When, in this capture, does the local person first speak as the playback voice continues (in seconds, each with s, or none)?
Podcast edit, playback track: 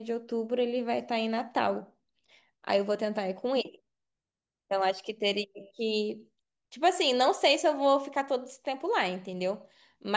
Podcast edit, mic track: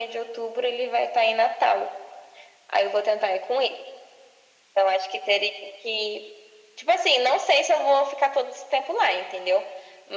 none